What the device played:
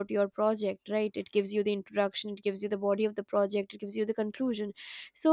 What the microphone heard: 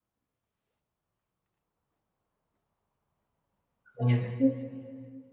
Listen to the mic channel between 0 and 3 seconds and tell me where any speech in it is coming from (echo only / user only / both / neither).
neither